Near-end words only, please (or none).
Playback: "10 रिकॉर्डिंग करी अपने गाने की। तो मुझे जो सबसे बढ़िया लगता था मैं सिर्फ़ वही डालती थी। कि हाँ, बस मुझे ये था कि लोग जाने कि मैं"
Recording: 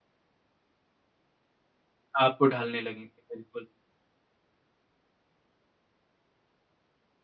आपको ढालने लगेंगे। बिल्कुल।